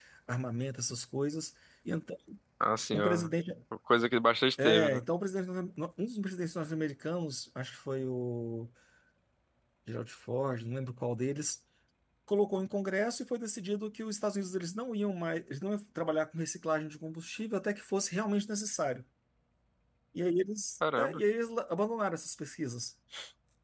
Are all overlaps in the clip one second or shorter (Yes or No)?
Yes